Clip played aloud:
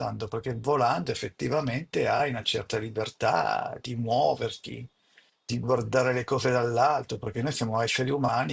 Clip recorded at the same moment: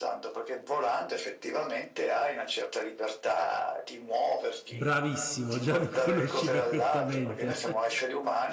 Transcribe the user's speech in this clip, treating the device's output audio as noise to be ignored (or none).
Bravissimo, già mi conosci perfettamente.